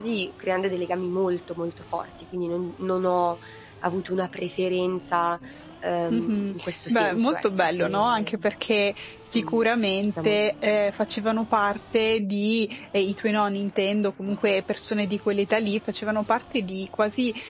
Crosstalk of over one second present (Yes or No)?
Yes